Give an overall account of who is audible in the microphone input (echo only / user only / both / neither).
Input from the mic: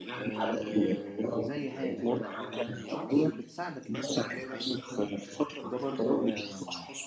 both